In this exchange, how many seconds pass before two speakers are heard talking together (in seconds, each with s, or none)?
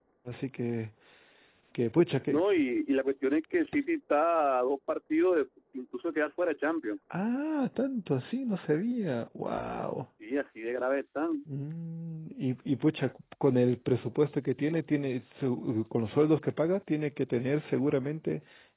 none